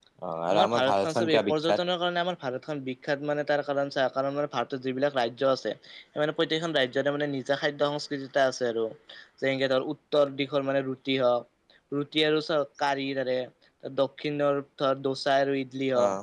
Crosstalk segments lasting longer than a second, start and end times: 0.5-1.8

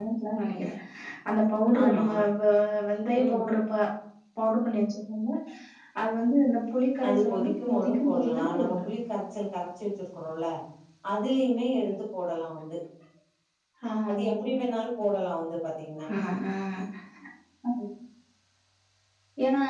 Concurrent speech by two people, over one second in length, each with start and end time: 7.1-8.9

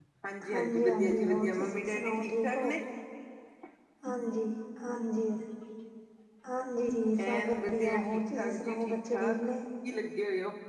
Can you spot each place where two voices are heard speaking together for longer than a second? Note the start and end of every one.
0.5-2.7, 7.2-9.4

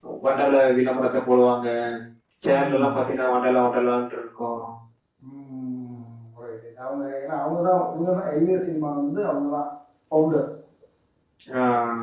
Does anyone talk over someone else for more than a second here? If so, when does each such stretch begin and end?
none

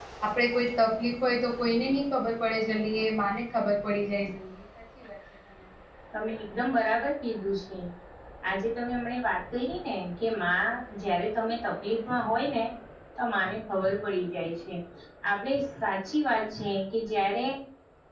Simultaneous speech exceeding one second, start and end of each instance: none

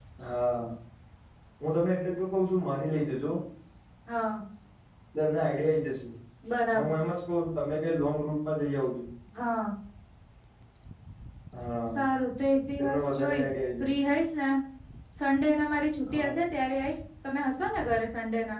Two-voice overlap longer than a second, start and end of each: 12.8-14.2

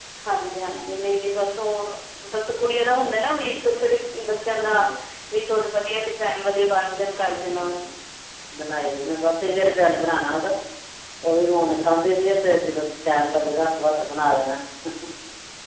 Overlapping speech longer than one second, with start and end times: none

